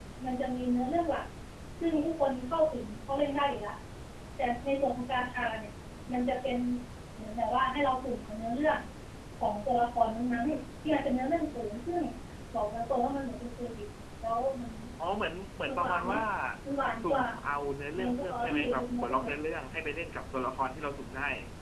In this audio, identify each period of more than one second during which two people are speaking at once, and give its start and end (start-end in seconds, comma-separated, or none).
17.9-19.3